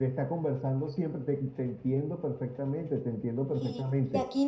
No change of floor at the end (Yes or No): No